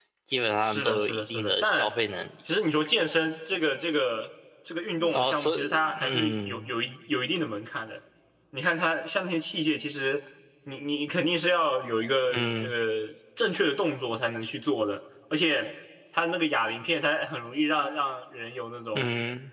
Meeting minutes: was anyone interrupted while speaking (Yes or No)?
Yes